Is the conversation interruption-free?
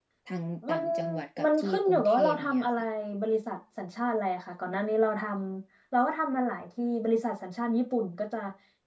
No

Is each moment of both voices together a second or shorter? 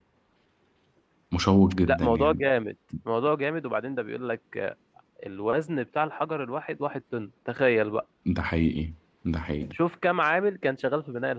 Yes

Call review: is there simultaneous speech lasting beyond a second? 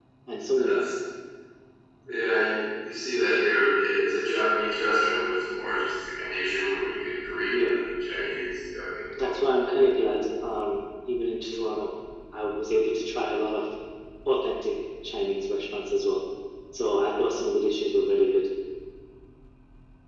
No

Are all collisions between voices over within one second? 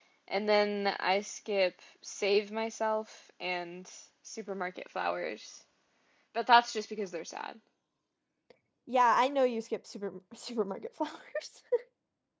Yes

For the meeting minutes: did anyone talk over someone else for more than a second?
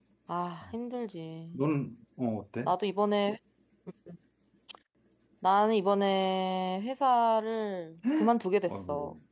No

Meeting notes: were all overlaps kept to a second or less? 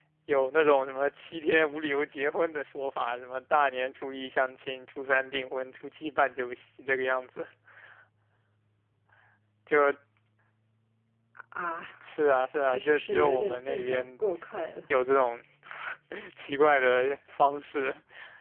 No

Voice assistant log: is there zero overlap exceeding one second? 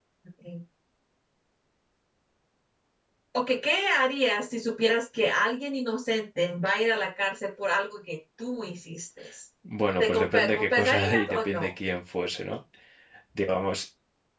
No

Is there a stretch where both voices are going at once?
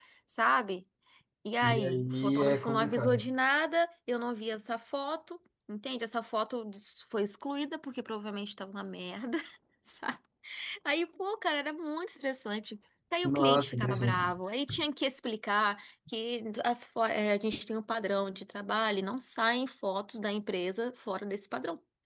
Yes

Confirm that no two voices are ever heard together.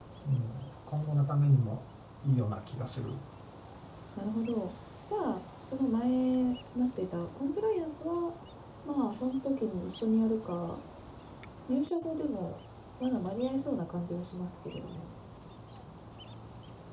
Yes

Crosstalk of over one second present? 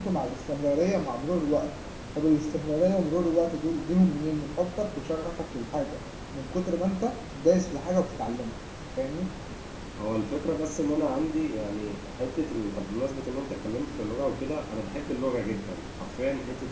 No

